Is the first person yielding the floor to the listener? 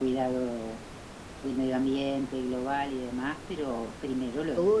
Yes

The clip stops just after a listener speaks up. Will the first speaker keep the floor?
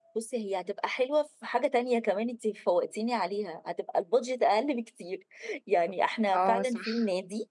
Yes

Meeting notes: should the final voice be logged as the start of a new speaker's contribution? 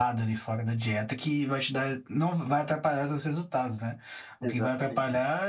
No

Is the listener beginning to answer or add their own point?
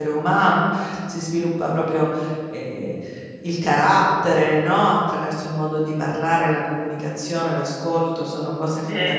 No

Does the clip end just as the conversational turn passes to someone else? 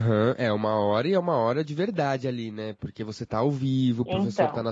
No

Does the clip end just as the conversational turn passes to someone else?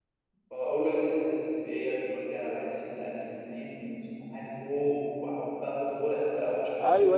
Yes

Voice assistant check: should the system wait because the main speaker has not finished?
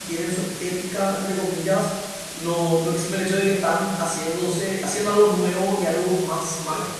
Yes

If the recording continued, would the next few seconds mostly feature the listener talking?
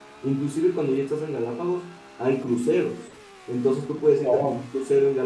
No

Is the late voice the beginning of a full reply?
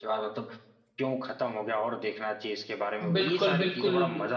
Yes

